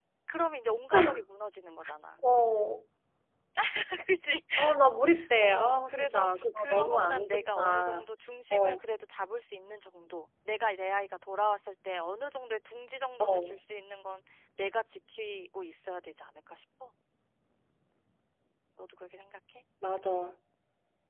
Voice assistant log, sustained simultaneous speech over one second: present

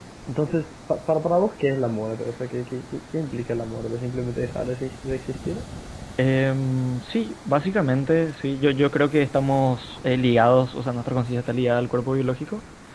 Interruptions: none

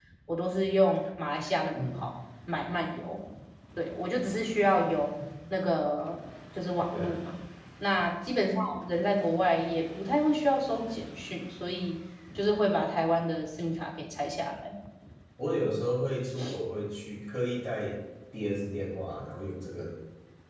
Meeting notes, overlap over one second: none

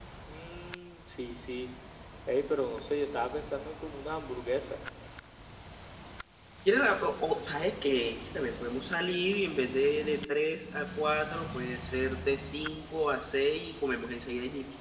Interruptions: none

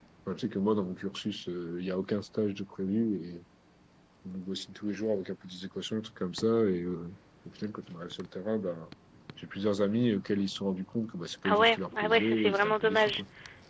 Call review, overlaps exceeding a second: present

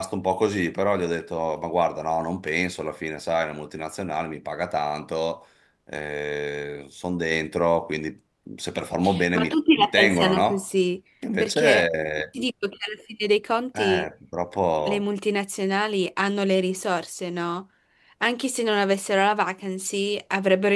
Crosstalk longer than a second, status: present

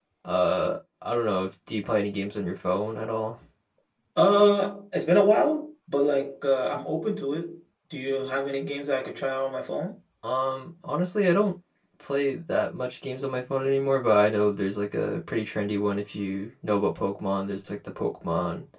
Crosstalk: none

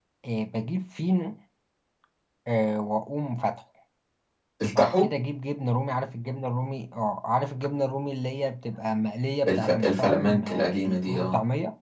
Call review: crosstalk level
present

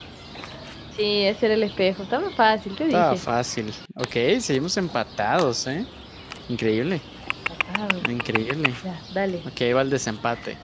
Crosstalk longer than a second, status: none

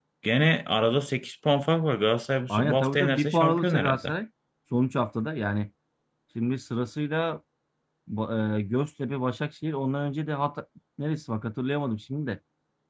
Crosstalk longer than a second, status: present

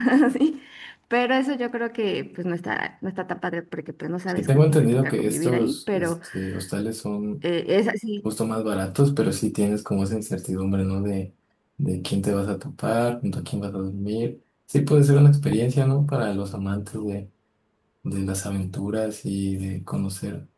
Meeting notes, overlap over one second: present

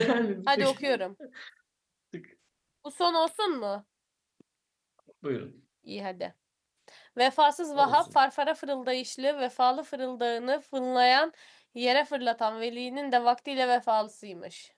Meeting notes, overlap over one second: none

